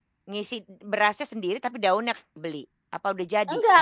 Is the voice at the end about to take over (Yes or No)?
Yes